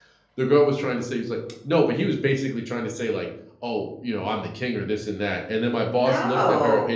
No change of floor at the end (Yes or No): Yes